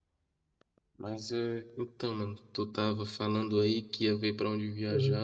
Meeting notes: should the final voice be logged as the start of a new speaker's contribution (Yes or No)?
No